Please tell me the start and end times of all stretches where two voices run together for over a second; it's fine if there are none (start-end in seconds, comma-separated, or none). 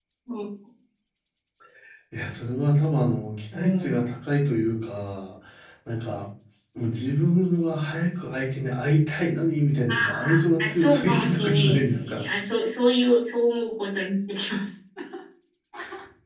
10.6-12.2